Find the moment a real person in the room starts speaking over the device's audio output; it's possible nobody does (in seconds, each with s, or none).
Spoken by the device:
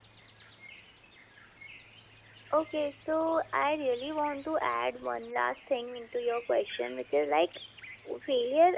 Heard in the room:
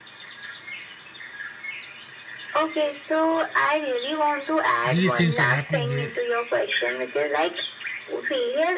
4.8 s